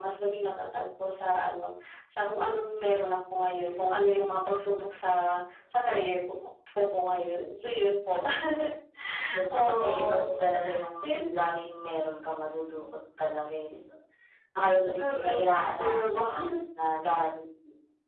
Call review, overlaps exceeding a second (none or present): present